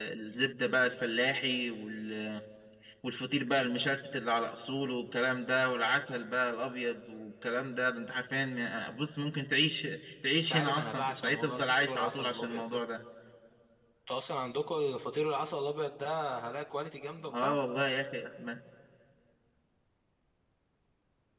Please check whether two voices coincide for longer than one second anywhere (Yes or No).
Yes